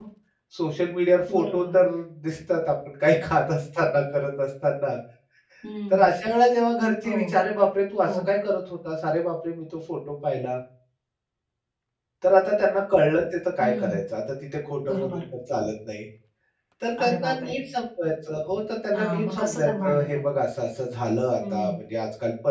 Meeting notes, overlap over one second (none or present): present